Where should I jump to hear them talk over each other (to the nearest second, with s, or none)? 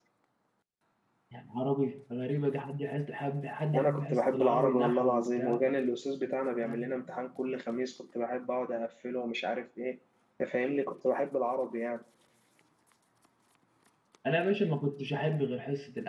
4 s